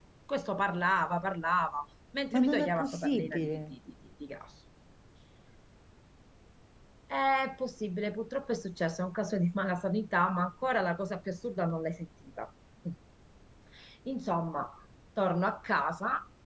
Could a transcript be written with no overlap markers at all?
No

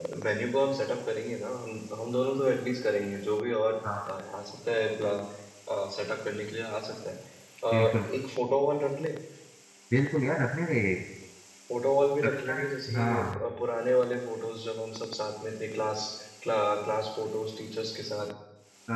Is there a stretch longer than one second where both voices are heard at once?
No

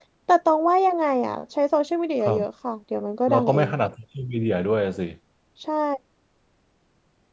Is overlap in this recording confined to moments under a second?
Yes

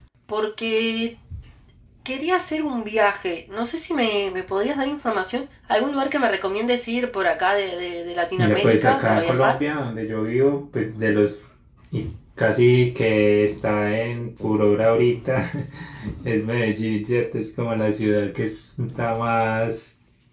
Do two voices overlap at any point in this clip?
Yes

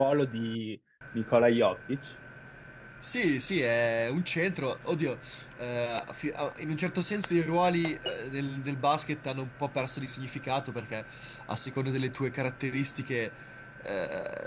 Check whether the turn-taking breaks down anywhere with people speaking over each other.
No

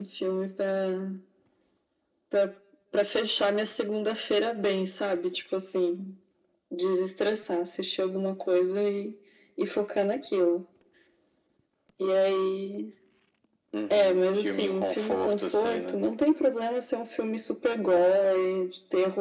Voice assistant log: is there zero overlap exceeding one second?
No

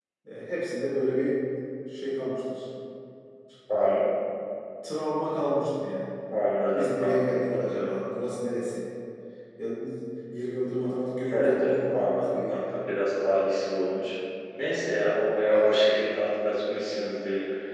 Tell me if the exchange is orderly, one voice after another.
No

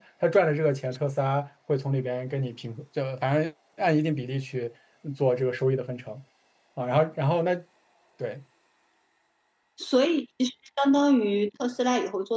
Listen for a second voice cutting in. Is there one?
No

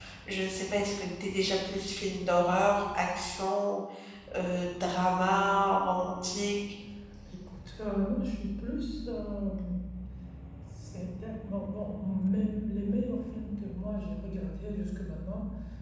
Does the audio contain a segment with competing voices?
No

